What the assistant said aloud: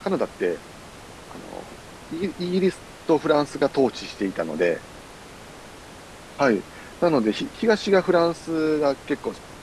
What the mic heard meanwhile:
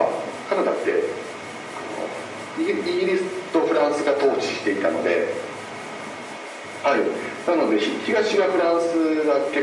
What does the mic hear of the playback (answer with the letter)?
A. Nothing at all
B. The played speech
B